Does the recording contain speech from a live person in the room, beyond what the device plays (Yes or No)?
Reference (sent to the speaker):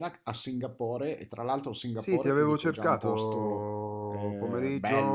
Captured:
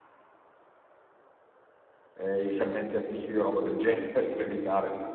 Yes